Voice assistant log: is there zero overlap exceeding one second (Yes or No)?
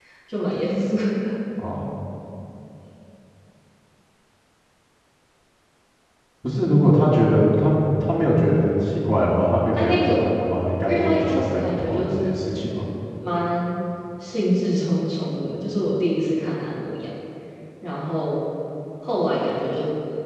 No